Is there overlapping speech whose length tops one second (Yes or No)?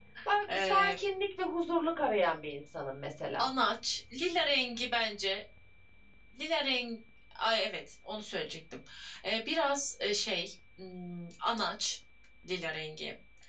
No